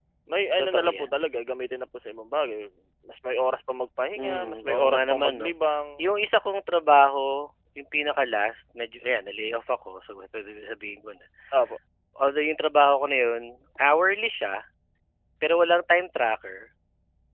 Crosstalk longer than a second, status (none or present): present